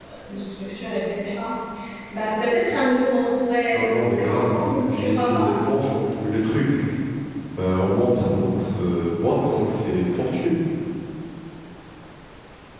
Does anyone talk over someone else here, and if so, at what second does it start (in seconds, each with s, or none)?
3.7 s